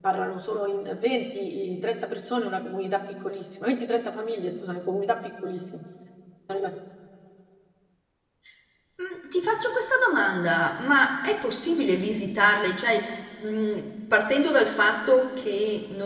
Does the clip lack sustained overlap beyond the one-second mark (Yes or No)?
Yes